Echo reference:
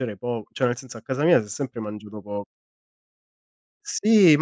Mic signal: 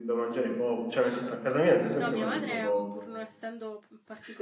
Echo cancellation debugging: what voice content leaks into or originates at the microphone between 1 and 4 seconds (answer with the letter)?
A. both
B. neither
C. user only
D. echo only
A